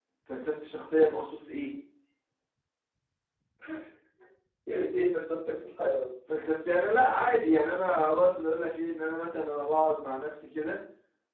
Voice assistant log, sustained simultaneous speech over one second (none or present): none